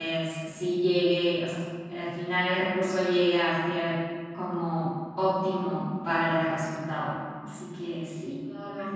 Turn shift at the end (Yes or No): Yes